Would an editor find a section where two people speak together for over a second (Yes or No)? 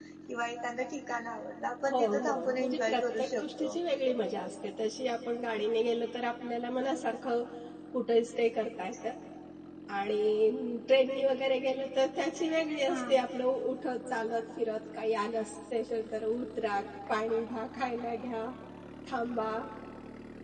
Yes